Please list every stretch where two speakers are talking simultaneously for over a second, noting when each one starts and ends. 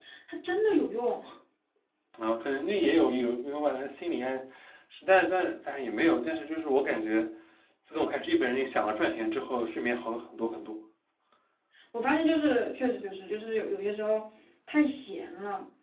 none

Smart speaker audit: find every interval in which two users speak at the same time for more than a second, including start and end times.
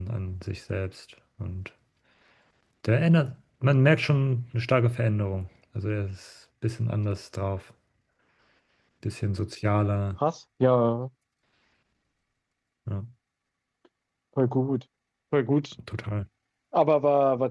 none

